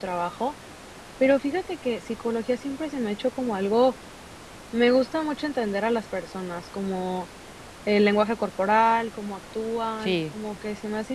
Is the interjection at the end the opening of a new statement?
No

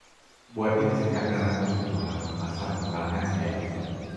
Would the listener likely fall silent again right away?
No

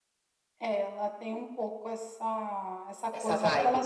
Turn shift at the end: No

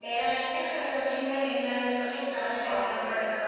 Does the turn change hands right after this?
No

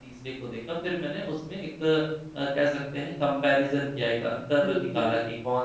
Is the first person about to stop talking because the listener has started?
No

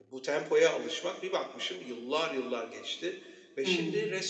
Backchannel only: Yes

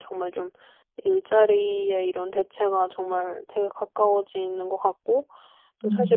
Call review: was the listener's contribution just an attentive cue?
Yes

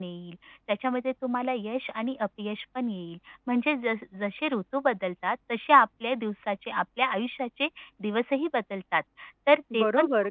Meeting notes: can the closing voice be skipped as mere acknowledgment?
No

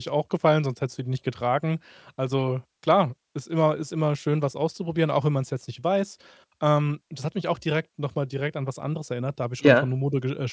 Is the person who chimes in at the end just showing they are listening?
Yes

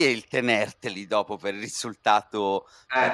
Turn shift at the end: No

